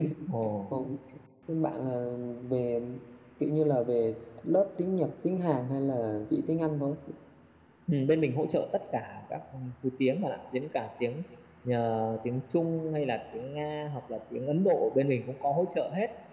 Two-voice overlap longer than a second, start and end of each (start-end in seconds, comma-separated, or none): none